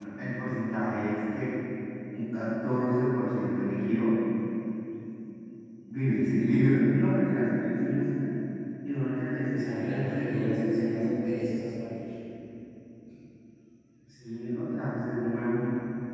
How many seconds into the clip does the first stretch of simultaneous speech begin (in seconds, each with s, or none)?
9.5 s